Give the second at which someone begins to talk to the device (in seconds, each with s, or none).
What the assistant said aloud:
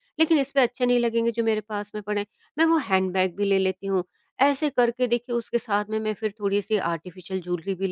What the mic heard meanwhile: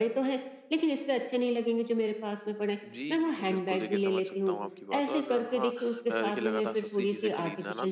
2.9 s